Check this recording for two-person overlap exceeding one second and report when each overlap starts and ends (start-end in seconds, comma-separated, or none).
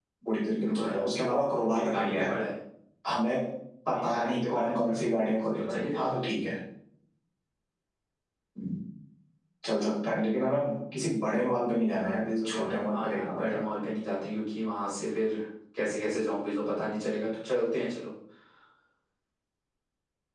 0.6-2.4, 3.9-6.1, 11.9-13.6